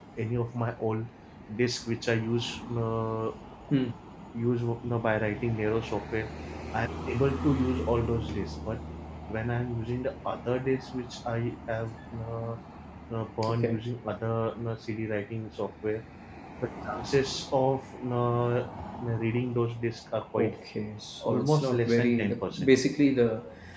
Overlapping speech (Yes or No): Yes